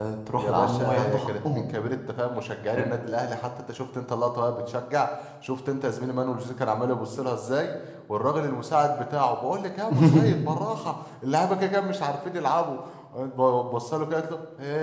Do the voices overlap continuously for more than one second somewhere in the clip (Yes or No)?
Yes